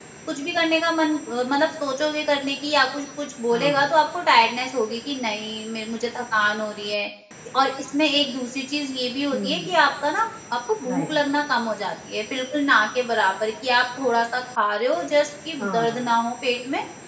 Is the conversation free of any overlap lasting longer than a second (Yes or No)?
Yes